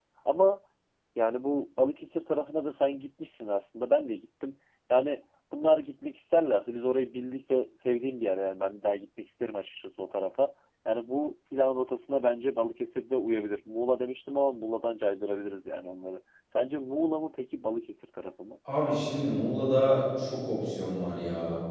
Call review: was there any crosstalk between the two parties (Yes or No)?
No